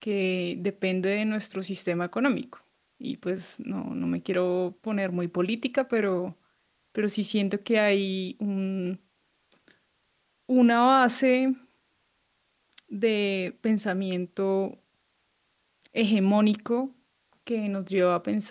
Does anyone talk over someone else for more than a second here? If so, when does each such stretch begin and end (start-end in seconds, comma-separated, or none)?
none